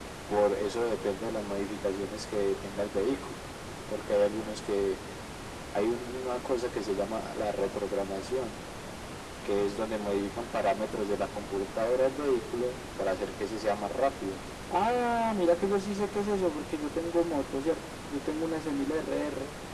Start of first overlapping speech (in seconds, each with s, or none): none